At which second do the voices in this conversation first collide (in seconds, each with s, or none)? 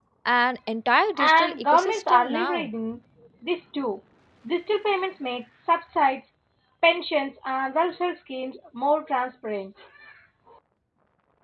1.2 s